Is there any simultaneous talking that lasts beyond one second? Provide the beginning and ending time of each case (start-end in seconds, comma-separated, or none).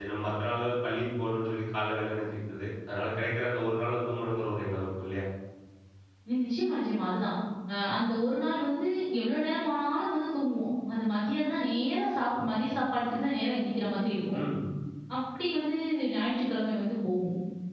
none